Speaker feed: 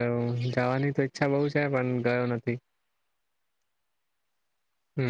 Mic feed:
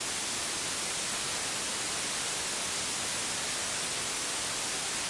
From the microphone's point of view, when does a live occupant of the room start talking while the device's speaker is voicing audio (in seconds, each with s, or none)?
none